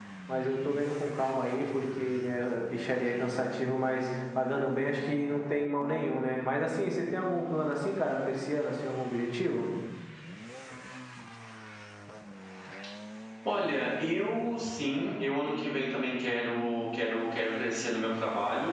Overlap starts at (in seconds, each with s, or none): none